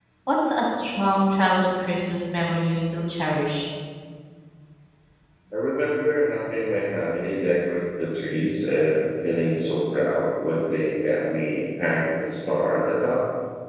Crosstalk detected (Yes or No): No